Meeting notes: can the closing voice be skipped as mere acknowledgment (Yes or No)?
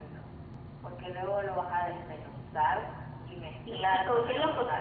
No